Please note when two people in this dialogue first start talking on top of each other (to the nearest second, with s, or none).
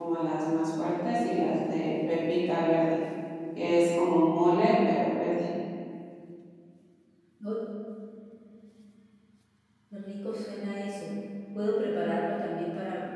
none